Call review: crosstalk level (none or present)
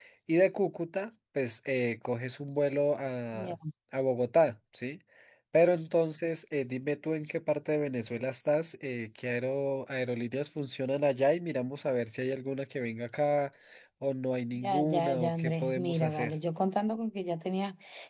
present